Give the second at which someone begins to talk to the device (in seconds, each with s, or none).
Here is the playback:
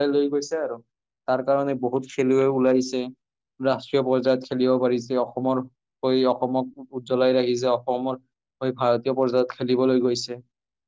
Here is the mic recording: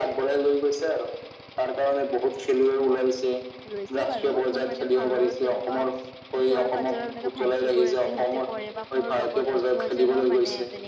3.7 s